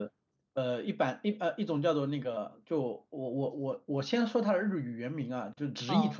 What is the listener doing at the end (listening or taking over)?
listening